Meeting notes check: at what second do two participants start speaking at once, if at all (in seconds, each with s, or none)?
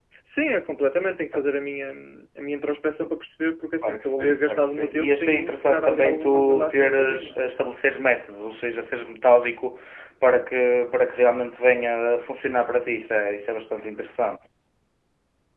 3.8 s